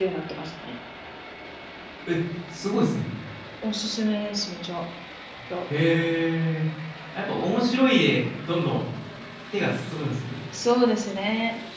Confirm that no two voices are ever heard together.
Yes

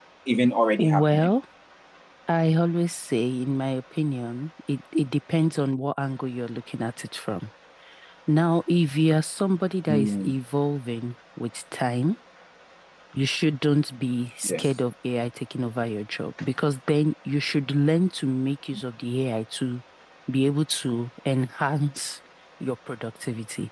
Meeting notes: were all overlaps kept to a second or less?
Yes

